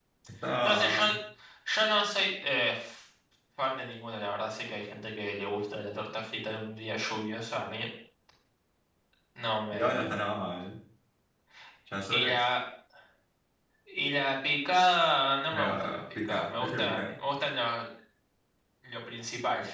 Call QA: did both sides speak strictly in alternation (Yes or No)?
No